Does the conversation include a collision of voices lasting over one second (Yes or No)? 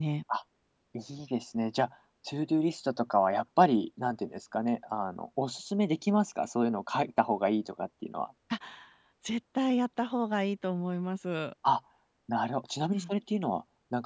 No